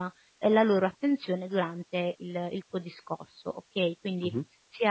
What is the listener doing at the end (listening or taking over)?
listening